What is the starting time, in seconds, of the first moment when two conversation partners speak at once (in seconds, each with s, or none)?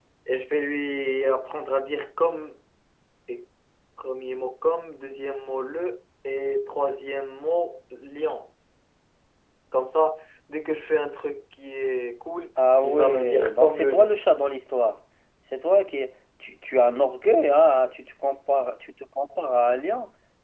12.8 s